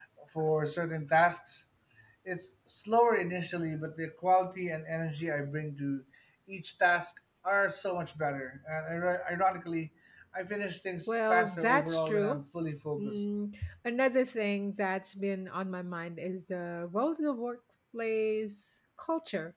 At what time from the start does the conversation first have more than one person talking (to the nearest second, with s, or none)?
11 s